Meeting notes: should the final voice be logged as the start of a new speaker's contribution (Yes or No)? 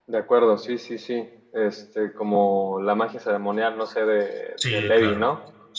Yes